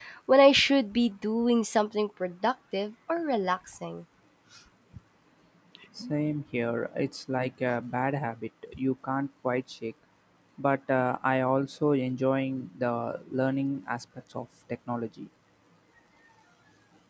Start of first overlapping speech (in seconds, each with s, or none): none